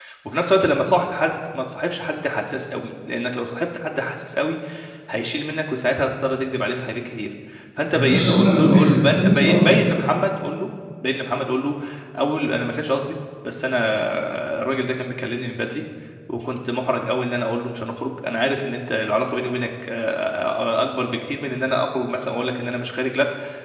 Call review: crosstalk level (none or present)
present